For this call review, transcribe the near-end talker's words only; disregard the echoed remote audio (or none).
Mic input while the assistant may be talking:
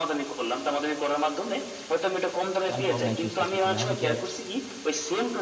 আমি কি অনলাইন চুজ করতেছি না হলে কি আর